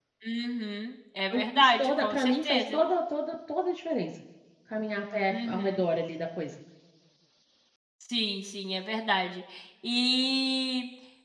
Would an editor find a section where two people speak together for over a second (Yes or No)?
Yes